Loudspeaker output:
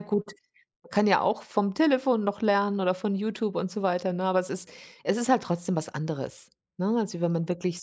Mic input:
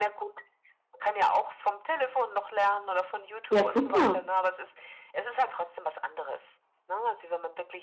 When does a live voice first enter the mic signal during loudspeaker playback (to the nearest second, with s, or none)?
3 s